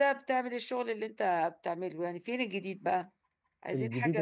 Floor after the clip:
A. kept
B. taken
B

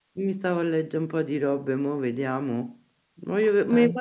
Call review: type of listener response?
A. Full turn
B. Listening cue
B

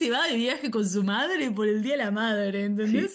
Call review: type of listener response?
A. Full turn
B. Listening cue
A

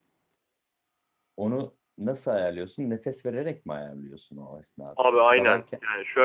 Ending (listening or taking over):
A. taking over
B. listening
A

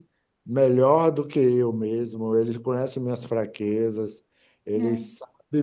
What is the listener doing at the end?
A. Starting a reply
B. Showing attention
B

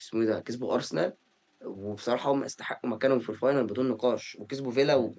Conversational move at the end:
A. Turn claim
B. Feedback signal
A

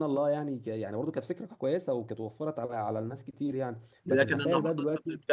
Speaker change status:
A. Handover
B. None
A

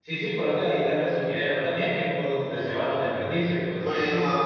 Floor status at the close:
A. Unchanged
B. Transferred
B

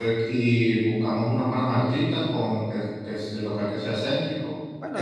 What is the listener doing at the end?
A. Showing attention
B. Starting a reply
B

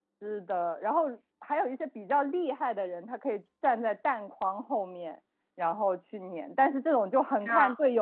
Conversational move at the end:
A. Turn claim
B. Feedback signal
B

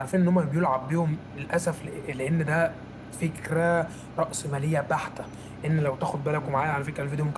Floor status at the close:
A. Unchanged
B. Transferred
A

